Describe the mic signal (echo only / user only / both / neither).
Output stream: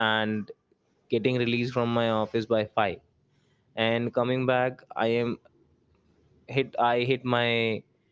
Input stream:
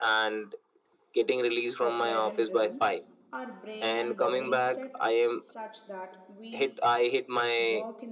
both